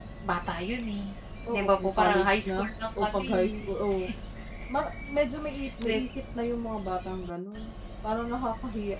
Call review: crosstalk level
present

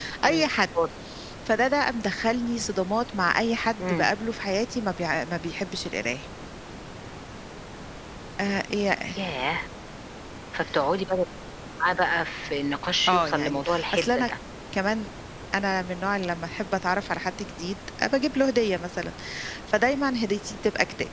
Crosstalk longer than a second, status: present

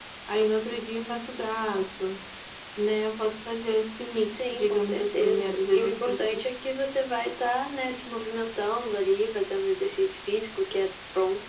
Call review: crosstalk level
present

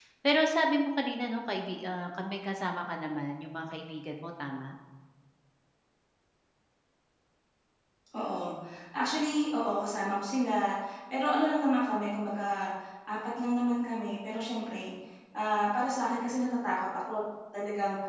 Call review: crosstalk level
none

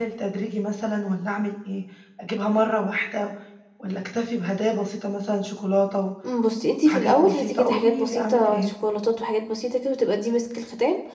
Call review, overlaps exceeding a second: present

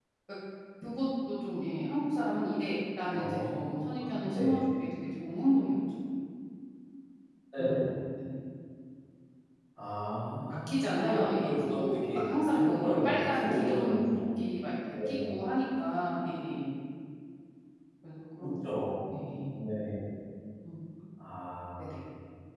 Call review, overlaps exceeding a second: present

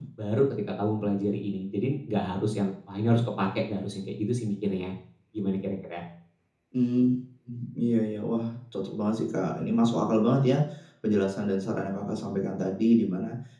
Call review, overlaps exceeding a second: none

